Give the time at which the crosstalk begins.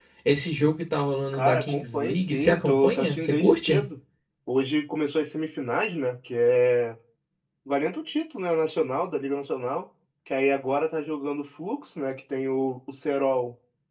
1.3 s

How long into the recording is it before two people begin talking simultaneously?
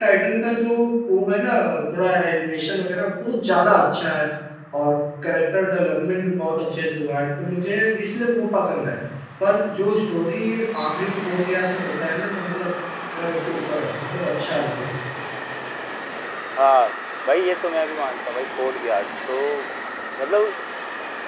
none

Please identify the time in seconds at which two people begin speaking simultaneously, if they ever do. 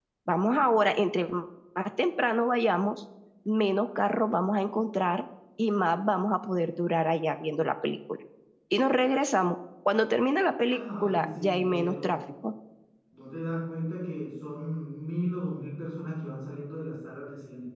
10.6 s

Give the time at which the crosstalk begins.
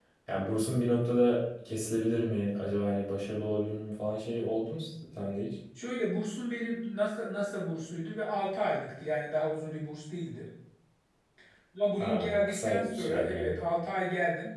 12.0 s

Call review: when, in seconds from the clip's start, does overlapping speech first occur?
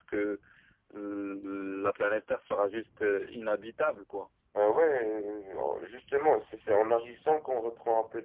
none

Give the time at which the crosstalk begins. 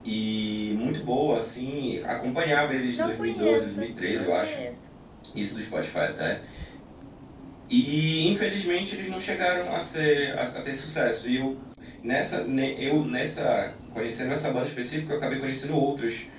3.0 s

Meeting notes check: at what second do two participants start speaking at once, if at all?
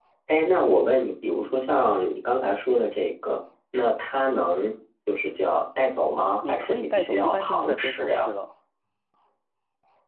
6.4 s

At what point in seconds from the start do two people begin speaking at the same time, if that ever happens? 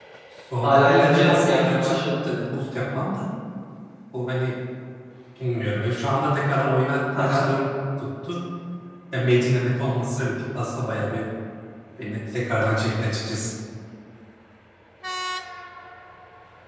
0.6 s

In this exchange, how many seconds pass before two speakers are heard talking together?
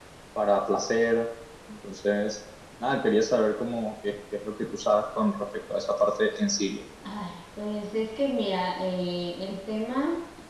none

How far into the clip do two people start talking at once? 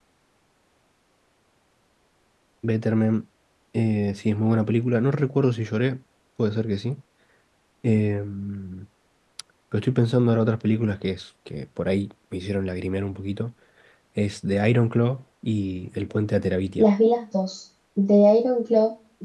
none

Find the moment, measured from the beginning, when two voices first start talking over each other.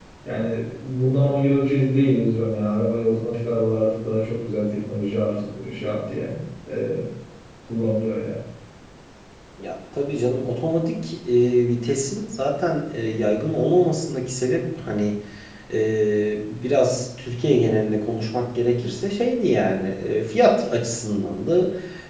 none

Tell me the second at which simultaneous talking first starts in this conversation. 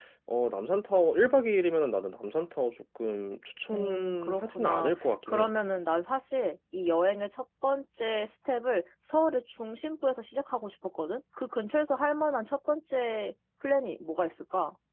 3.7 s

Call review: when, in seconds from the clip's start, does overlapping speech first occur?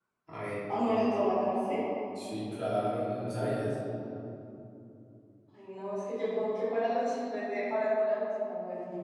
none

